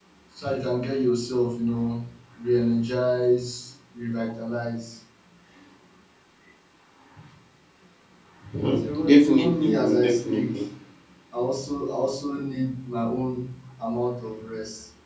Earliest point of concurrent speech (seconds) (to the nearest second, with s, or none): 9 s